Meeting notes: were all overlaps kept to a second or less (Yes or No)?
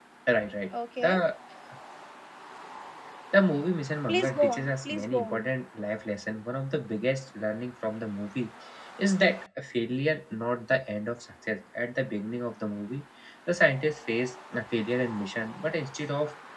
No